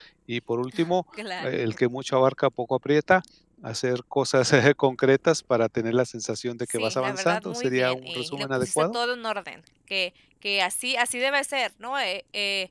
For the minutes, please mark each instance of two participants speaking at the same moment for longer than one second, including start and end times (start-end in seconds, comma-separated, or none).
6.7-9.0